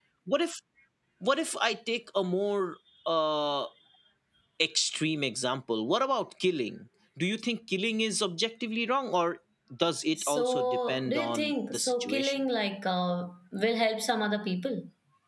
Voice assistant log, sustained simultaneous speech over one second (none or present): present